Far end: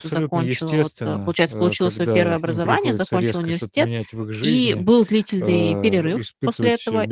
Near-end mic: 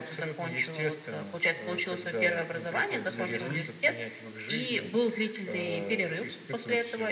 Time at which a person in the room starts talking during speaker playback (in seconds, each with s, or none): 3.1 s